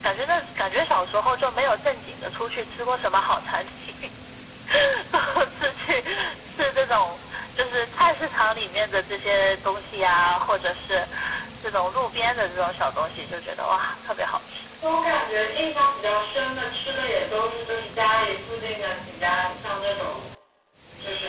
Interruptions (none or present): none